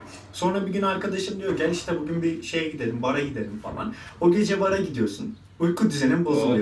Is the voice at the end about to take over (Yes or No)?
No